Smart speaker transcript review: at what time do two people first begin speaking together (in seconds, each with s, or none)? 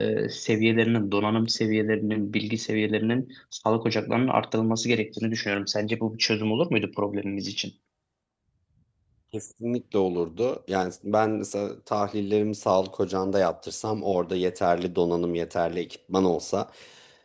none